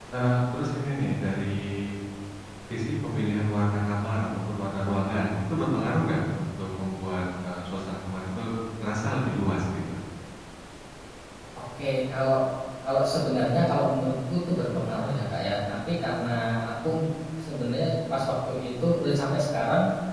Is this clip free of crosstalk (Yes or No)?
Yes